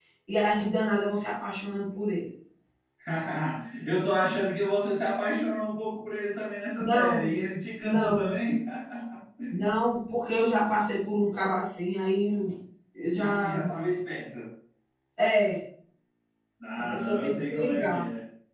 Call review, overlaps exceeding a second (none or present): present